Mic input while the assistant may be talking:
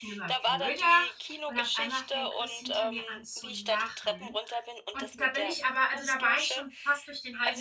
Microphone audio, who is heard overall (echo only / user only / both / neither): both